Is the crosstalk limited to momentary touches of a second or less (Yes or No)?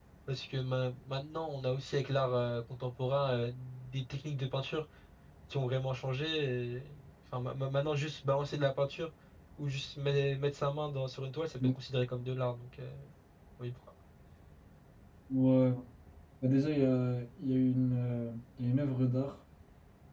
Yes